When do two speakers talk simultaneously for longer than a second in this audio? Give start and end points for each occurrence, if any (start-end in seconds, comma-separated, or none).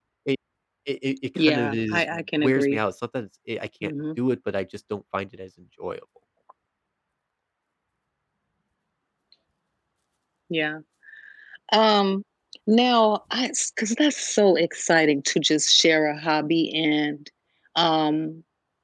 1.4-2.8